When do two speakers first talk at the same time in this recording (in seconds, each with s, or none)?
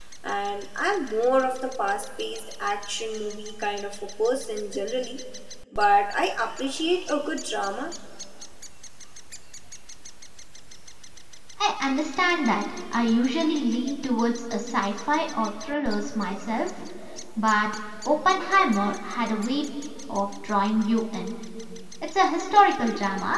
none